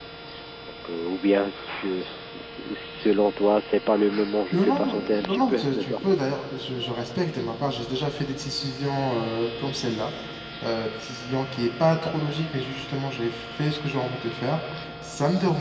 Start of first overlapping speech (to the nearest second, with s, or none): 5 s